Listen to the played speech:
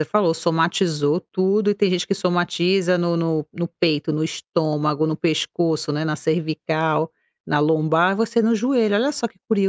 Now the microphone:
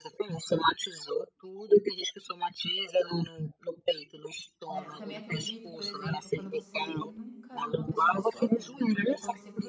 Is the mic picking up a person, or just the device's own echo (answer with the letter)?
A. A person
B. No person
A